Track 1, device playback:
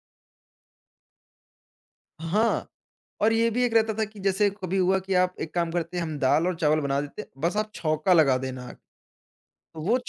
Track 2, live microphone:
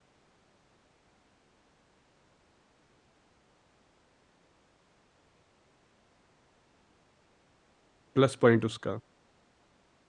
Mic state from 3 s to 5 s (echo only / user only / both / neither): neither